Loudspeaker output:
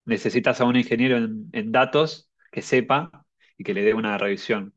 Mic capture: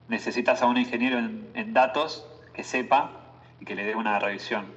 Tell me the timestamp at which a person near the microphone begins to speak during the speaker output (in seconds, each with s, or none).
none